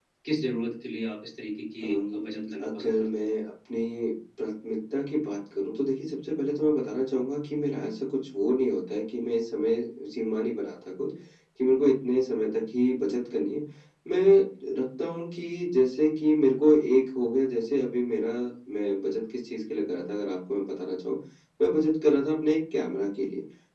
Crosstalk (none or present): present